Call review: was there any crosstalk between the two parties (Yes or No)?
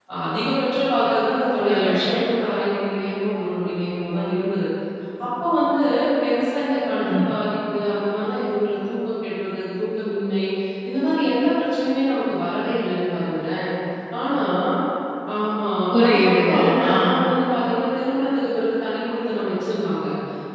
Yes